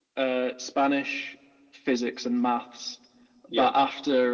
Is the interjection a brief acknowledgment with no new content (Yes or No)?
Yes